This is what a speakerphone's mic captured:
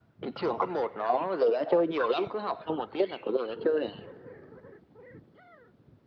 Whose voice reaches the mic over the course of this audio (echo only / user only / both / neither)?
echo only